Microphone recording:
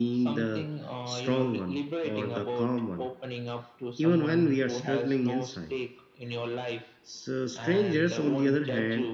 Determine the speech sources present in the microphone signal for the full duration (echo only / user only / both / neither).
both